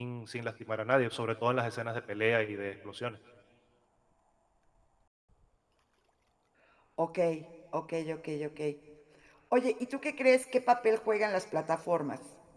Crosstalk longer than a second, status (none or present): none